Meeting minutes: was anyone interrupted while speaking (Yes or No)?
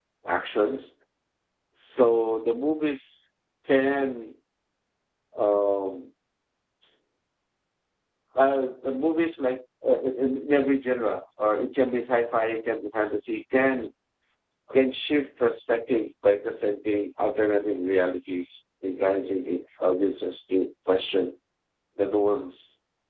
No